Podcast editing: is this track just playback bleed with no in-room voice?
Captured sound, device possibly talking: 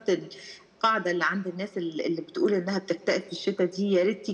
Yes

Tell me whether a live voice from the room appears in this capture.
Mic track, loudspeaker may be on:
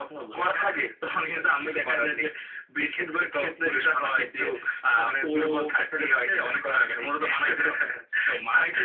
No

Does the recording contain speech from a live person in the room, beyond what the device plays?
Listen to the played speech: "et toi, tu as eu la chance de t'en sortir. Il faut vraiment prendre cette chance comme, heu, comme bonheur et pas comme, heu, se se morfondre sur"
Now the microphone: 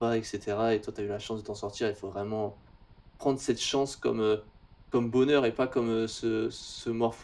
No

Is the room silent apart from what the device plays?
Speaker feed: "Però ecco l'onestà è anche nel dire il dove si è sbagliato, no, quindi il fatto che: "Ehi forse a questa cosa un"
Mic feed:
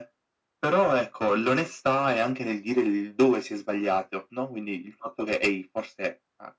Yes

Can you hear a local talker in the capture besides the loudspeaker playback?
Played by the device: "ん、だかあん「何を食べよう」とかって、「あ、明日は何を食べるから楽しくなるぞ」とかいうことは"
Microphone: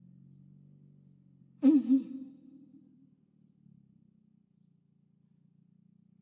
Yes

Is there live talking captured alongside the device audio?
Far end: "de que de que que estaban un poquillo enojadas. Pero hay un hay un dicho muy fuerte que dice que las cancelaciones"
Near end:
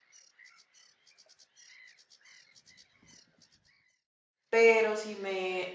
Yes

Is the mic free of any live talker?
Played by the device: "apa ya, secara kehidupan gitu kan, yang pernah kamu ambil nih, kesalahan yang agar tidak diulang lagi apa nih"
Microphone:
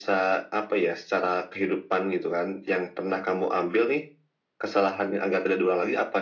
Yes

